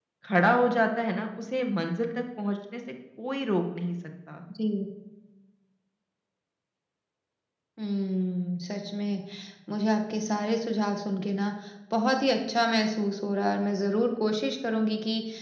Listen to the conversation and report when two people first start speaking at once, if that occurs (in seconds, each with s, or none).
none